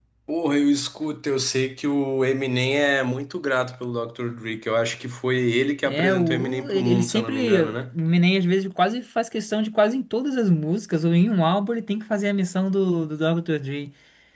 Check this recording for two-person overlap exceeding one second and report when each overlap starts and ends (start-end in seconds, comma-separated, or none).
5.9-7.8